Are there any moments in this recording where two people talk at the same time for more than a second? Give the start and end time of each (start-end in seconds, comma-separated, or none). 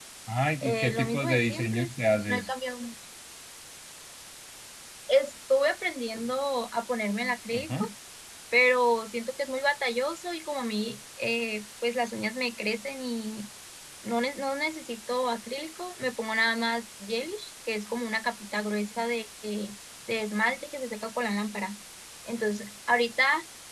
0.6-1.9